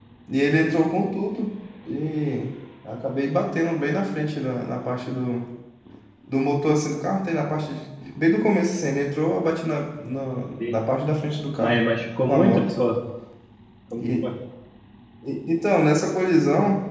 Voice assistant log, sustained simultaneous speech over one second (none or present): none